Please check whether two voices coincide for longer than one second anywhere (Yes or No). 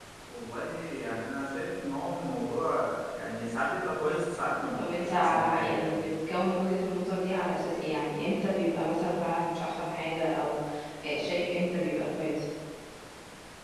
Yes